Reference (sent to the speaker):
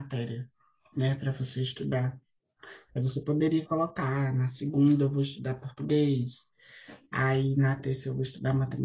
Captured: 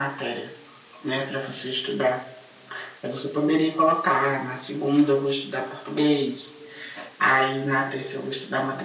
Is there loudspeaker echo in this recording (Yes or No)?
Yes